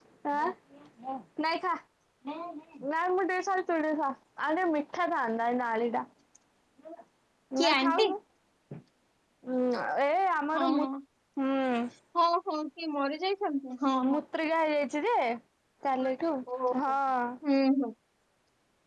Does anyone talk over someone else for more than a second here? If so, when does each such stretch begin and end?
none

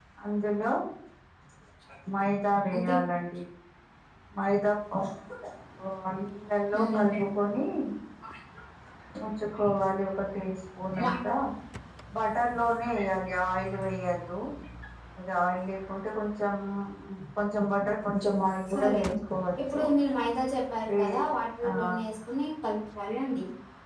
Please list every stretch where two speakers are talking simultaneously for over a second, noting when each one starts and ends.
none

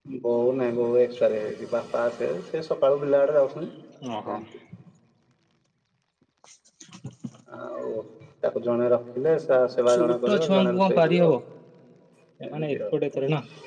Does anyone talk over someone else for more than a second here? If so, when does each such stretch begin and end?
9.9-11.3

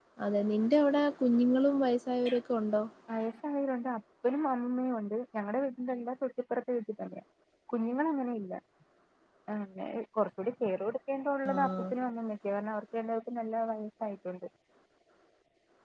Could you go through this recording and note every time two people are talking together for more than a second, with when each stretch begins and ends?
none

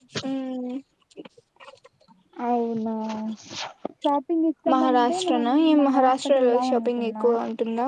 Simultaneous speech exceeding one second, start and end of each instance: 4.7-7.3

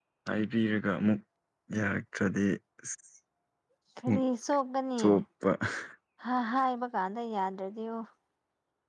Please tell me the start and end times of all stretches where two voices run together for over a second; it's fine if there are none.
none

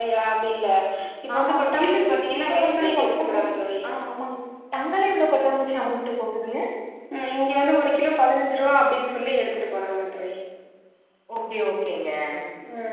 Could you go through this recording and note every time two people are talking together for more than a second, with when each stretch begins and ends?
1.3-3.4

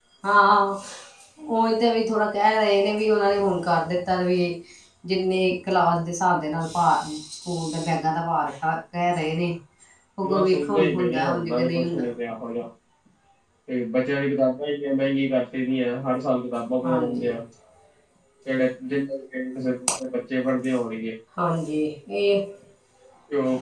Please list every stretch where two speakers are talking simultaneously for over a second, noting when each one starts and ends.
10.3-12.1

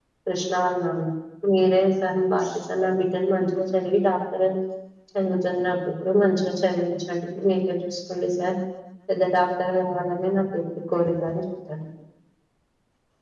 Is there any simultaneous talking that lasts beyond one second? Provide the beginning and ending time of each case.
none

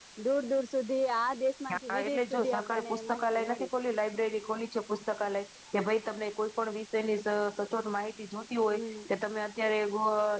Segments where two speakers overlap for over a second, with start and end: 1.7-3.7

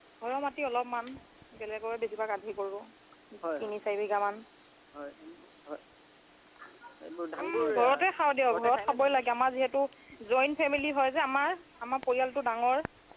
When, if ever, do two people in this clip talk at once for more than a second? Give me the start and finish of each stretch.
7.4-9.2

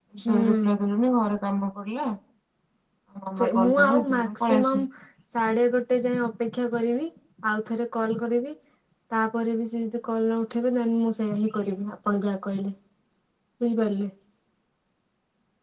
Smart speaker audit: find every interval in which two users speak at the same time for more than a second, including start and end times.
3.4-4.8

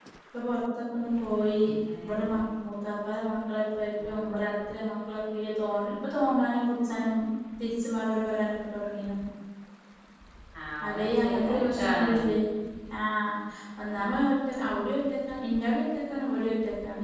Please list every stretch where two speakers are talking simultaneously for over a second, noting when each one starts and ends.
10.9-12.2

